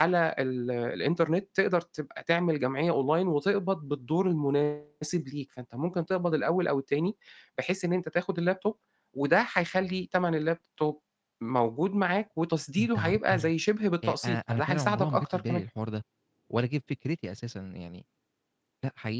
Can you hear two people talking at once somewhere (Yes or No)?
Yes